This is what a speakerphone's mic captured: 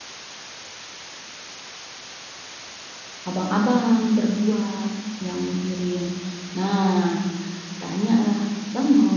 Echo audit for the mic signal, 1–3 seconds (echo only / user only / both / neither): neither